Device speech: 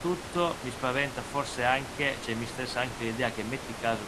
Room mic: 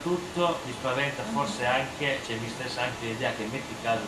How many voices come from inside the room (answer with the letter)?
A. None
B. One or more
B